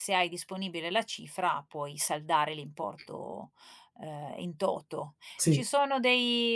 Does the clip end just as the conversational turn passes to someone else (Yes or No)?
No